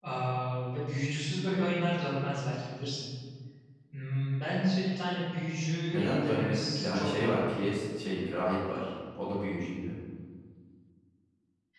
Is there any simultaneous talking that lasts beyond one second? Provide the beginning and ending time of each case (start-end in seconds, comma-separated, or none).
5.9-7.4